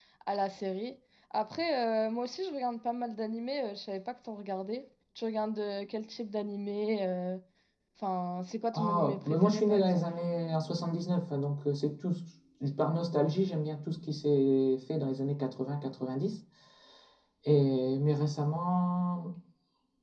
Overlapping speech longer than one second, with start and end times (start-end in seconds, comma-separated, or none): 8.7-10.0